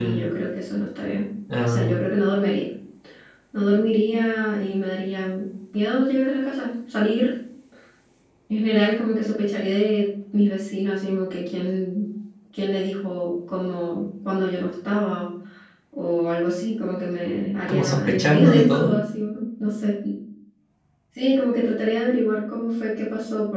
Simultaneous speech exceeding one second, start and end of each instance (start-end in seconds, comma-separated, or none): 17.7-18.9